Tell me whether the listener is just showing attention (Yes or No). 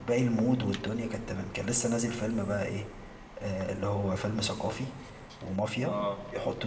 Yes